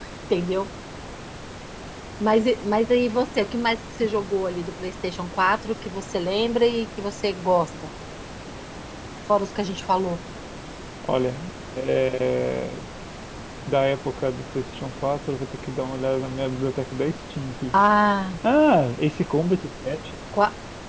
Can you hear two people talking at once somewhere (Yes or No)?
No